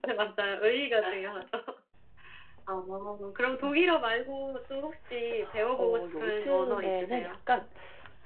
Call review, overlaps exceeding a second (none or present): present